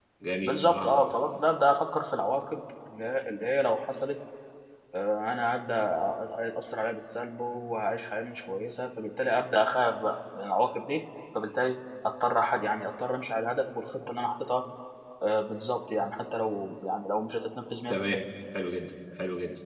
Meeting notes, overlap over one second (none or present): none